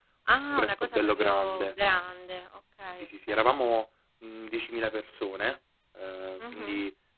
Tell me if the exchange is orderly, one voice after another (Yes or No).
No